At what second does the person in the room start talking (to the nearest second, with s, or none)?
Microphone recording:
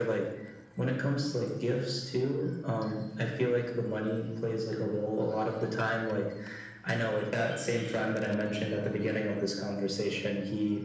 none